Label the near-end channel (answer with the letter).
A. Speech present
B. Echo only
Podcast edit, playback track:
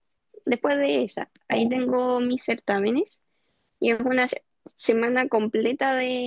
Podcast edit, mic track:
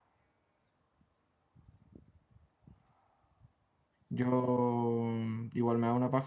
A